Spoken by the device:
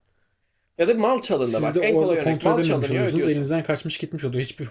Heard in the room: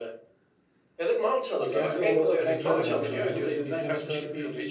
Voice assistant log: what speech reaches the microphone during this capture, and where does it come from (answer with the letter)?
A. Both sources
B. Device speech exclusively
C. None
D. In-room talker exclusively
A